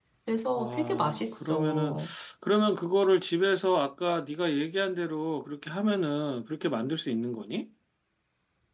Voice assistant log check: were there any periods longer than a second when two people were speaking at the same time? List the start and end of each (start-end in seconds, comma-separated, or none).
0.6-1.9